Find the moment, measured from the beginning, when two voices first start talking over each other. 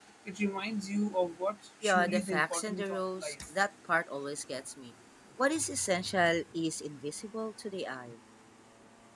1.8 s

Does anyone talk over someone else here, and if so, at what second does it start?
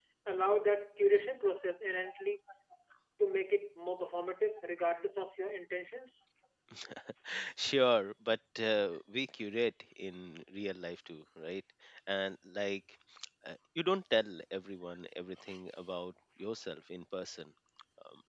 none

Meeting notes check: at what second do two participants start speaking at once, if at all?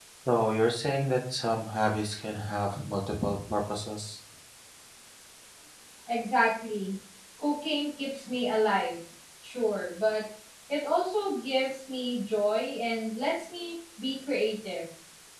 none

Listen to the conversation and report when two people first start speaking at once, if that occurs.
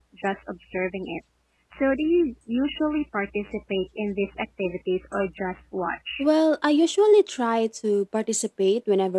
none

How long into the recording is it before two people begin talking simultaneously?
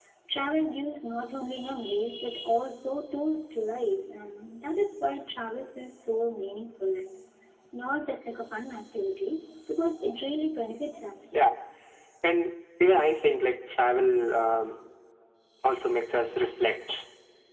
none

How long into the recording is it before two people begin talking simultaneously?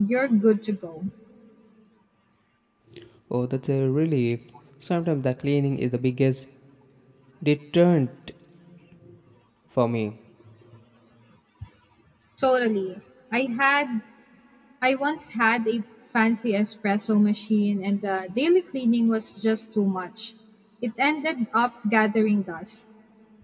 none

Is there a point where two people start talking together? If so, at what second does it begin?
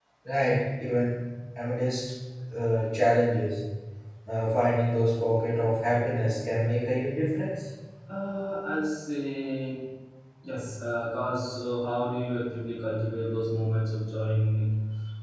none

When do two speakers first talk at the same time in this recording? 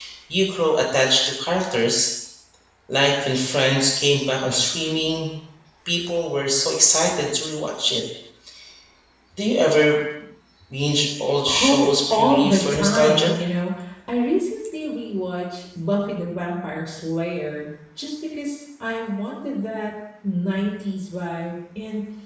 11.5 s

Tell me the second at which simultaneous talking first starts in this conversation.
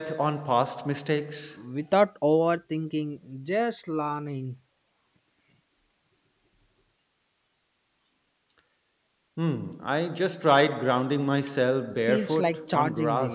12.1 s

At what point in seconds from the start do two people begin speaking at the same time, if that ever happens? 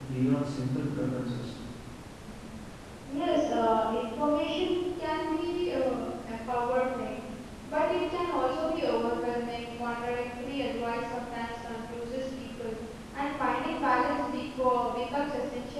none

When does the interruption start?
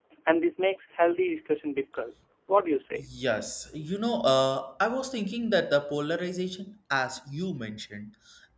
none

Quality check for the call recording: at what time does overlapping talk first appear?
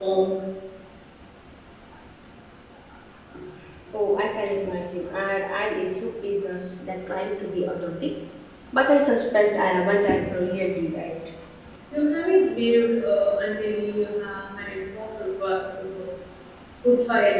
none

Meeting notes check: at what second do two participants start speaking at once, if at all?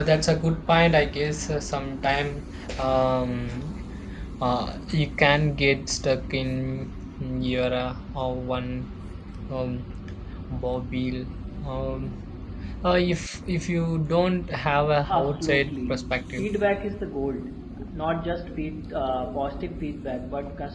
15.1 s

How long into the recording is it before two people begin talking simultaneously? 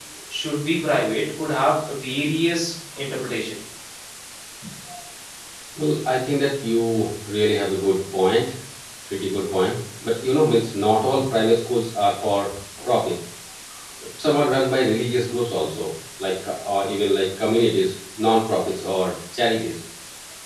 none

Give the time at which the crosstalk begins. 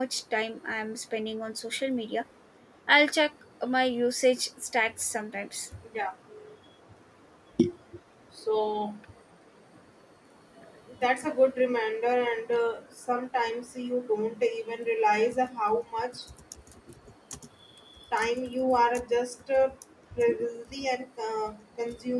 none

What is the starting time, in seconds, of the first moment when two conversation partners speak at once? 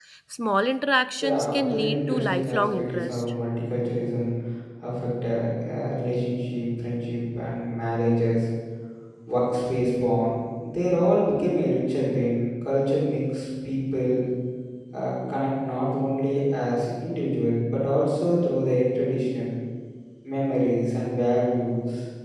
1.2 s

